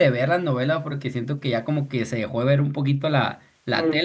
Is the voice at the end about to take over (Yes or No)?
Yes